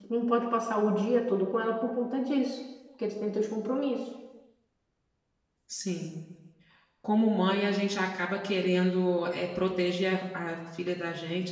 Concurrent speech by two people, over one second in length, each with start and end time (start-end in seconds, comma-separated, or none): none